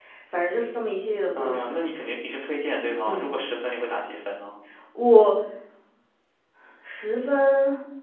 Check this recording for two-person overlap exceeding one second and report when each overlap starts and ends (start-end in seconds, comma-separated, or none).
none